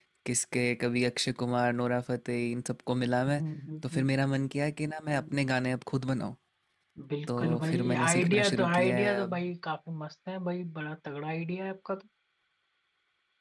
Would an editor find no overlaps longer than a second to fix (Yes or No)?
No